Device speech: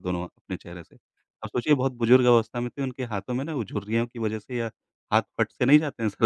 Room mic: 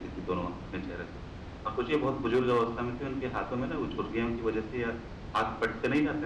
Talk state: echo only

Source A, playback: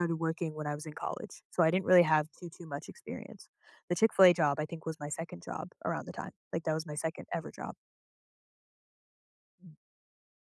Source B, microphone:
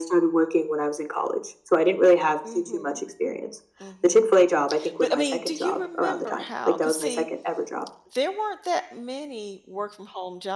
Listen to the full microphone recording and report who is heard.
both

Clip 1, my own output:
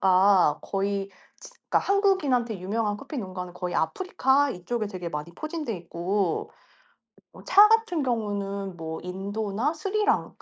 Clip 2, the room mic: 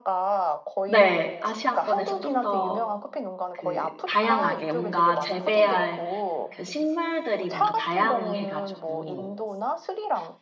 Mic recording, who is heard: both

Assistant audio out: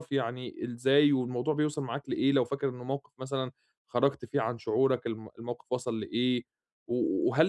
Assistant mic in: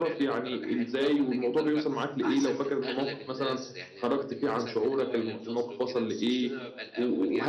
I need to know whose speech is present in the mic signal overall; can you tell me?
both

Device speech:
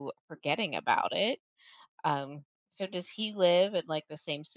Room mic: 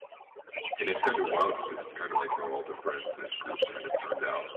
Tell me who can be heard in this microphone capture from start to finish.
both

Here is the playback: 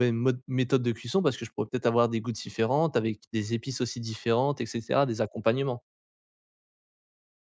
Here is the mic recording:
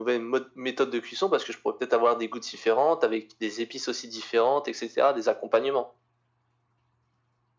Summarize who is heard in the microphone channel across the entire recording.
echo only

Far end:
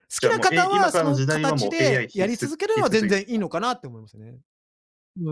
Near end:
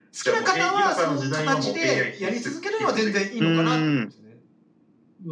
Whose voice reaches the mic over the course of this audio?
both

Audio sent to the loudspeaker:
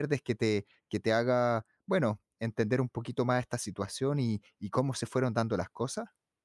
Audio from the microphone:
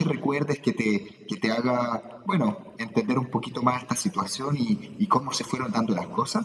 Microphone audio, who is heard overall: echo only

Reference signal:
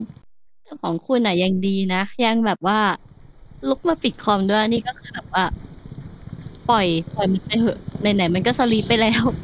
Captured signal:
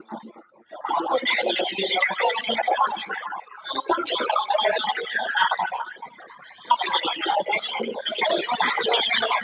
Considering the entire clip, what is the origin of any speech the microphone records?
echo only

